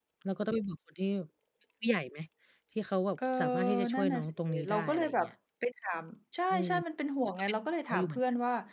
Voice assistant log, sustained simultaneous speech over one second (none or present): present